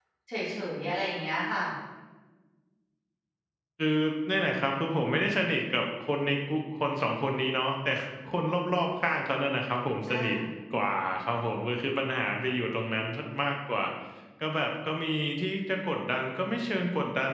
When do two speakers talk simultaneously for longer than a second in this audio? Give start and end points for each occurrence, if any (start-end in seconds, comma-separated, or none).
none